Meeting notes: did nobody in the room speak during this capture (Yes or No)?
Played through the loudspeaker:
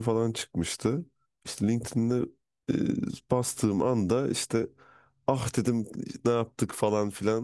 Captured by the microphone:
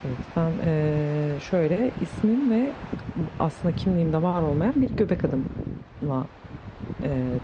No